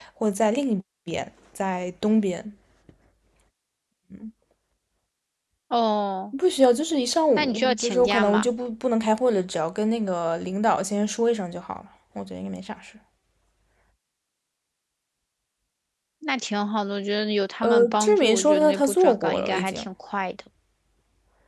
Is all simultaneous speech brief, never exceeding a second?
No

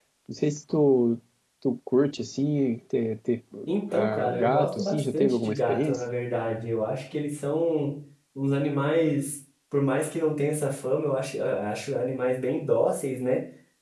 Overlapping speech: Yes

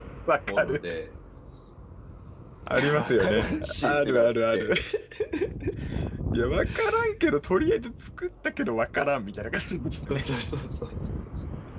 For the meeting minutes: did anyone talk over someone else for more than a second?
Yes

